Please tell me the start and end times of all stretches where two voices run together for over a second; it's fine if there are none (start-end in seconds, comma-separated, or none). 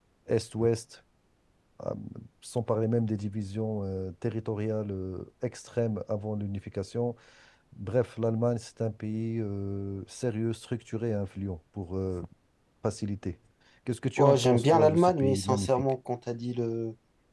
14.2-15.9